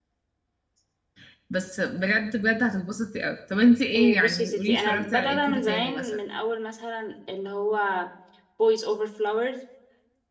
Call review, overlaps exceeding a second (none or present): present